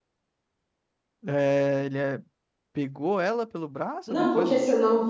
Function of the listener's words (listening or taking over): taking over